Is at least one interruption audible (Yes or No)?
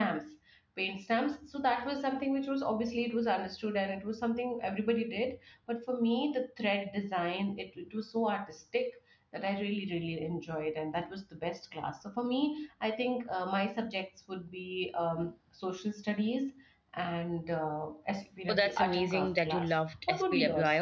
Yes